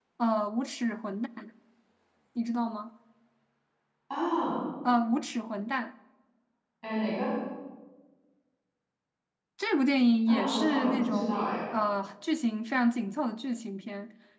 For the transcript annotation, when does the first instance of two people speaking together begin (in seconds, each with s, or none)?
10.3 s